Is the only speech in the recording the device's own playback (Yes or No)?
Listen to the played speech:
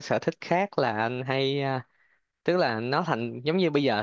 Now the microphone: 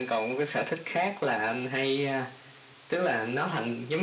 Yes